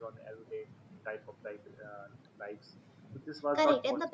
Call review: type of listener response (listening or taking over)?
taking over